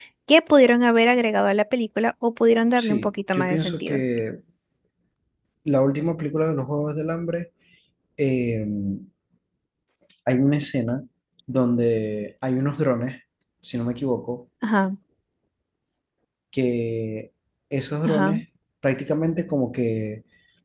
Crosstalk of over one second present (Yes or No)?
Yes